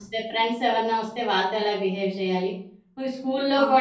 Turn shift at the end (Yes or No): No